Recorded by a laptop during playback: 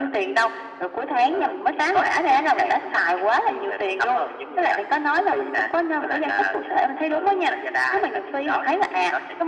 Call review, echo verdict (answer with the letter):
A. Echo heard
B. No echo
A